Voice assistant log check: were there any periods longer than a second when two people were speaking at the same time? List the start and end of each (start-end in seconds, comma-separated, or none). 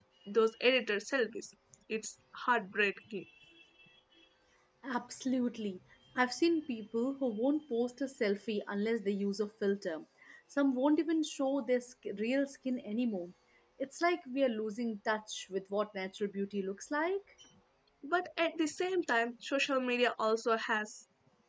none